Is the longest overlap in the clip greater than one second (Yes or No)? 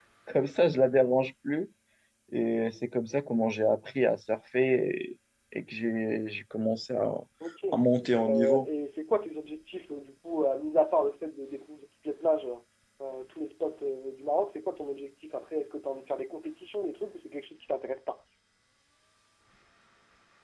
No